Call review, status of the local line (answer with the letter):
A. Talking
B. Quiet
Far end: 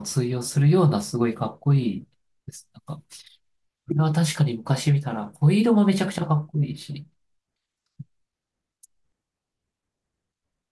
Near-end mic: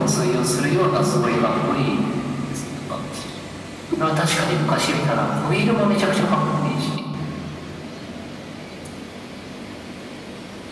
B